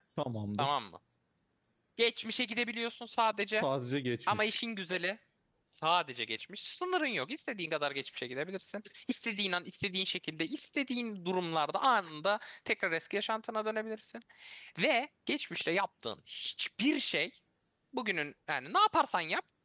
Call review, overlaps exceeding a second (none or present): none